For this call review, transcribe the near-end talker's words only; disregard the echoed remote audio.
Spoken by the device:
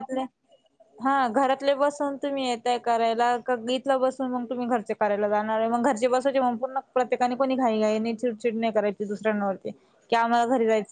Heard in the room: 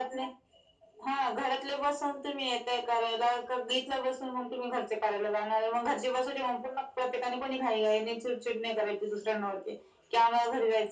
none

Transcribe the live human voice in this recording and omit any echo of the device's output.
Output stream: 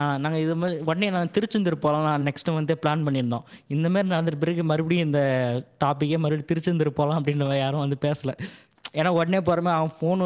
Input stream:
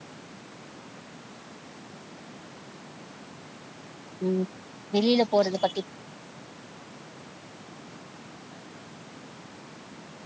ம் வெளியில போறது பத்தி

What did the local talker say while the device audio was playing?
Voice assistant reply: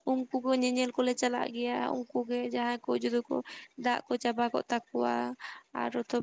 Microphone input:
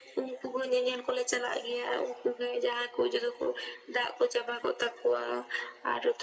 none

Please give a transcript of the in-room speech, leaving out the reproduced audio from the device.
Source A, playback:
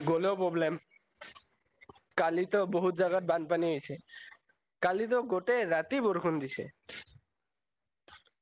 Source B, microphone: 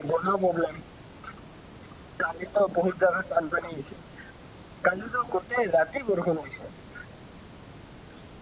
none

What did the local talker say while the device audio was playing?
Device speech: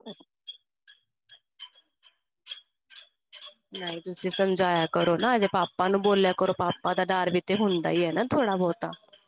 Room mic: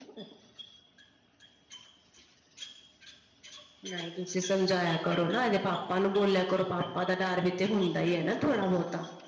none

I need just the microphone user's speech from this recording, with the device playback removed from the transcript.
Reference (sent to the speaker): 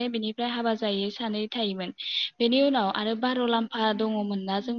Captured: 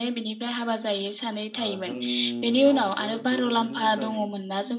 ओह जोंनियावबो बेबायदिनो जायो

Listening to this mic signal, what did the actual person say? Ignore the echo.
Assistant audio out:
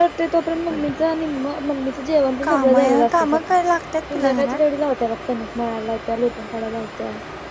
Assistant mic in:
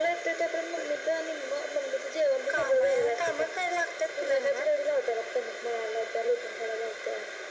none

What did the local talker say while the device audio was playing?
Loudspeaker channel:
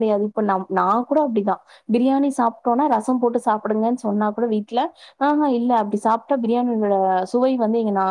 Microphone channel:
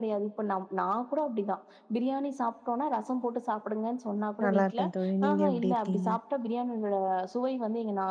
நல்லாருக்கே தோழி நீங்க எப்டி இருக்கீங்க

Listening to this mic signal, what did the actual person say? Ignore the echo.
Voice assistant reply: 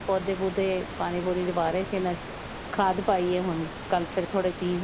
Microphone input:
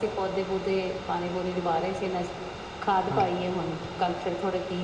ਹਾਂਜੀ--ਹਾਂਜੀ।

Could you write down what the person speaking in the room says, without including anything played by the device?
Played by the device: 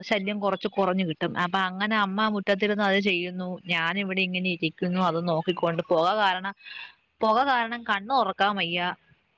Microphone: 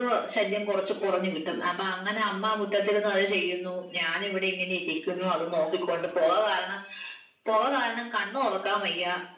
none

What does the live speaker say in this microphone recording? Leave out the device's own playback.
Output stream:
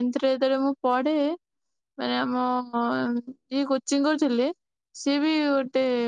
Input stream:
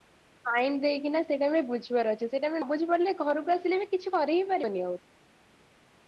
ସାଇ ଦେଇକିନା ସେଇଟା ଆମେ ବୁଝିବାର ଅଛି ସେଇଟା ଆମେ ନବୁଝିପାରିଲେ ଘରକୁ ଆସିଲେ ବି କିଛି କରିହିଁ ପାରିବାନି ଆଉ।

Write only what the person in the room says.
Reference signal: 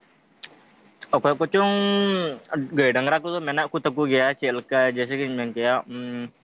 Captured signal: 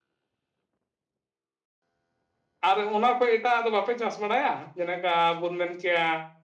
ᱟᱨ ᱚᱱᱟ ᱠᱷᱚᱡ ᱮᱴᱟᱜ ᱟᱜ ᱫᱚ ᱵᱟᱯᱮ ᱪᱟᱥ ᱵᱟᱲᱟᱭᱟ ᱡᱮᱞᱮᱠᱟ ᱵᱚᱱ ᱢᱮᱱ ᱠᱮᱭᱟ

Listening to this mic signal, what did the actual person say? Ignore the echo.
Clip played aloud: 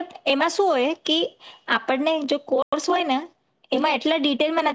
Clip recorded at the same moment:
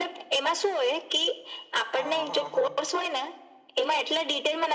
હા હા હા

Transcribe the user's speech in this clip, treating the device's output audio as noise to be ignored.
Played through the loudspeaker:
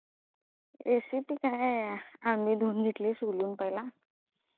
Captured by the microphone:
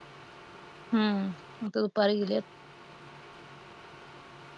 हम्म आता दुपारी गेलेत

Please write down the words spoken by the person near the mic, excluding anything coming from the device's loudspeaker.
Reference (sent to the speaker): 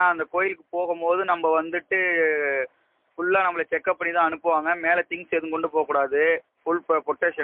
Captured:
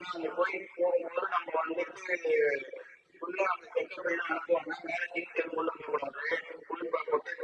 none

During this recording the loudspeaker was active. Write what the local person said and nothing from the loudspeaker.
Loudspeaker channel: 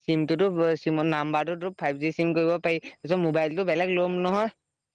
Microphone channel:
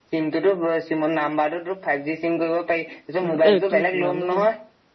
উম, এ তোৰ নামটো কিনো?

